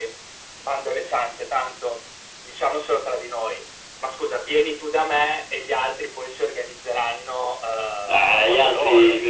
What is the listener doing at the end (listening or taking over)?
taking over